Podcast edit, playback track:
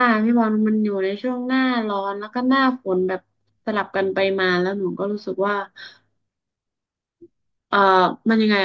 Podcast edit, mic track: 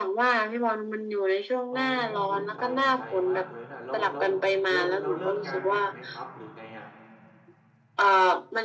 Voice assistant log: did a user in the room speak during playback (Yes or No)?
Yes